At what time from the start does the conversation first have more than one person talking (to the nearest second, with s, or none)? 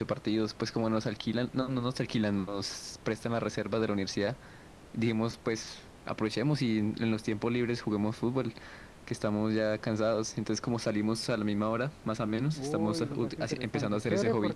13 s